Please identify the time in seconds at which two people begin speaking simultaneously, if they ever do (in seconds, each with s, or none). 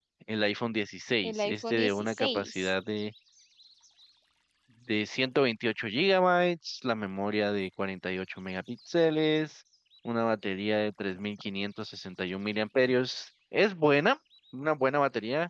1.2 s